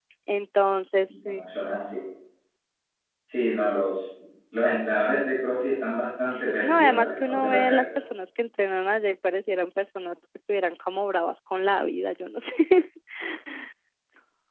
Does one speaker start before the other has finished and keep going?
Yes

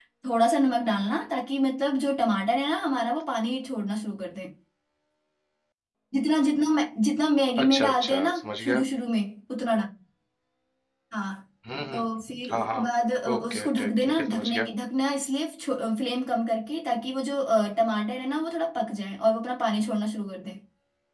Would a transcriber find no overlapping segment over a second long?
No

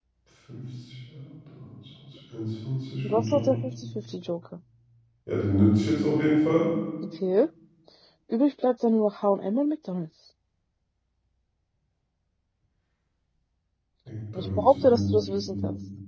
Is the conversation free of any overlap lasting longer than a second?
No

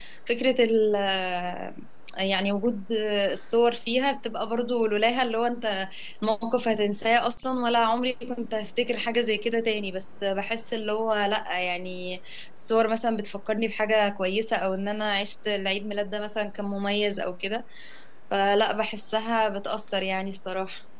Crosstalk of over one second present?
No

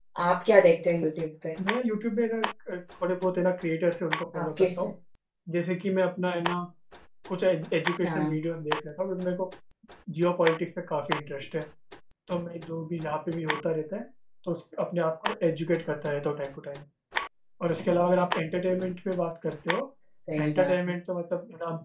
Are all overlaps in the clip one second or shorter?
Yes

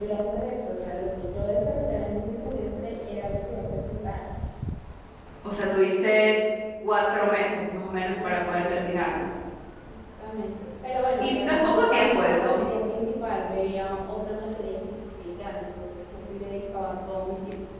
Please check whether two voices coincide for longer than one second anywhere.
Yes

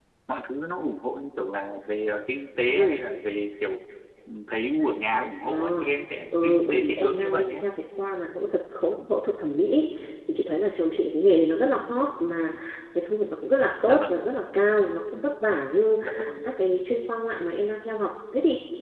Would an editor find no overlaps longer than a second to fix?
No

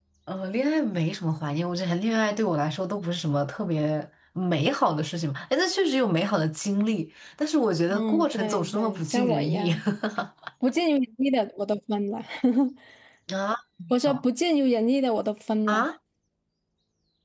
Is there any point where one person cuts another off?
Yes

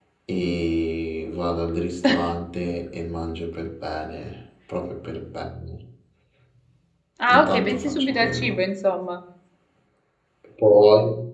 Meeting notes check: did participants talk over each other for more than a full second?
Yes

